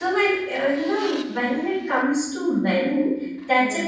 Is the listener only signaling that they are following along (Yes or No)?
Yes